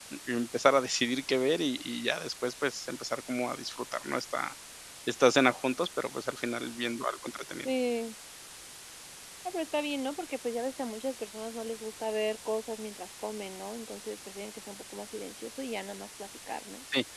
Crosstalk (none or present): none